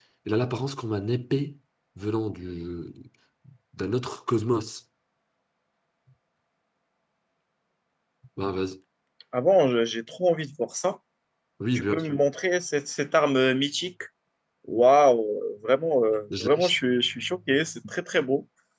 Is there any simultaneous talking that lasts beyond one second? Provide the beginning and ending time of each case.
none

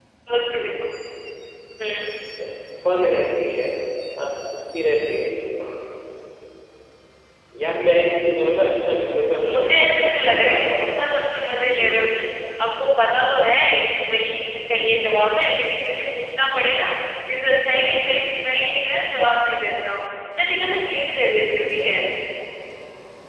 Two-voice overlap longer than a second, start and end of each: 9.4-11.0

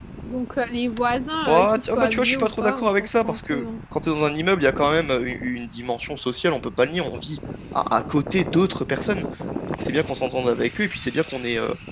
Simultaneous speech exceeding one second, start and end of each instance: 1.4-3.6

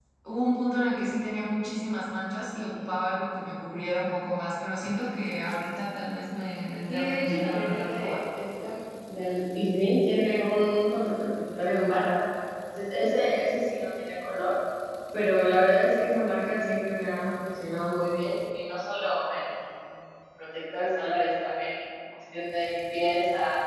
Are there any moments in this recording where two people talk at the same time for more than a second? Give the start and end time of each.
6.9-8.2

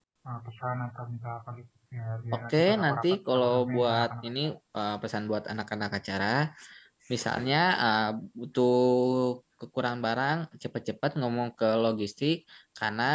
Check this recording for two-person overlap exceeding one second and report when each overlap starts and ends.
2.3-4.3

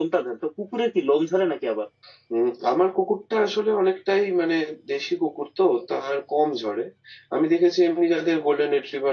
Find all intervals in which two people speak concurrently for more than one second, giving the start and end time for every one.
none

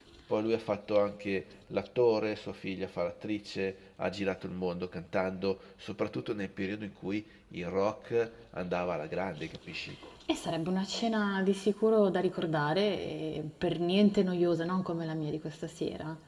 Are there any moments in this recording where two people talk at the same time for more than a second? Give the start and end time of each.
none

